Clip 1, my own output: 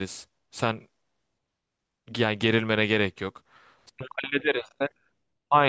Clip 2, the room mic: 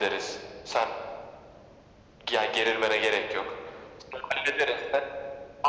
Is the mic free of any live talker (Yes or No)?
Yes